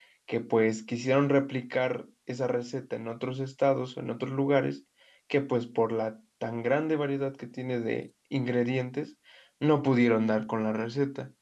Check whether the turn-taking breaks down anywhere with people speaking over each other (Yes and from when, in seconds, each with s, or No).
No